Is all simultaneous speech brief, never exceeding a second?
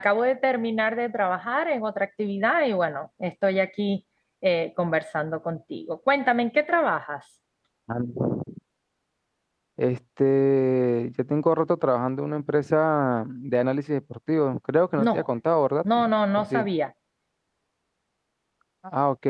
Yes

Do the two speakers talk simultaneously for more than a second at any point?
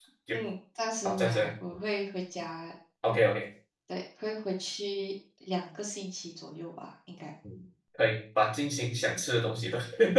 No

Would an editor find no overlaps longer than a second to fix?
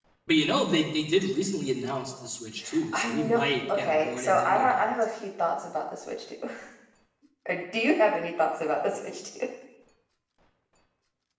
No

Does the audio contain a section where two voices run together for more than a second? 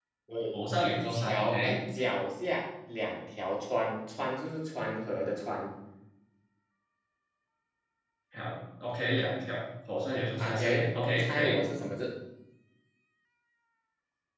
Yes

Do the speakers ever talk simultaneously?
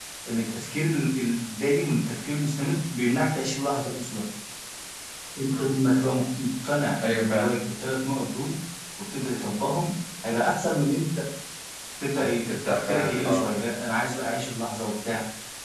Yes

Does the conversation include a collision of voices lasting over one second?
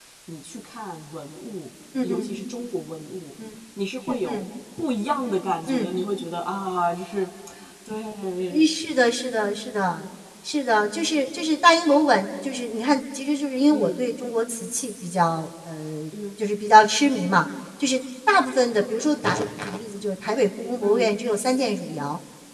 No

